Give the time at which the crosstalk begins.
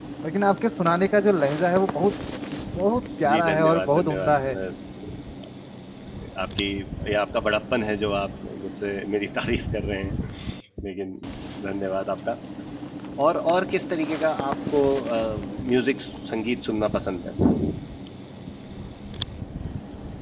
3 s

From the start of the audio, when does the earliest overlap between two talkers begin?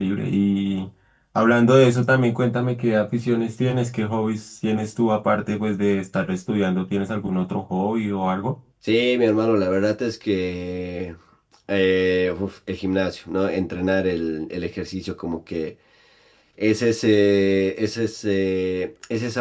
none

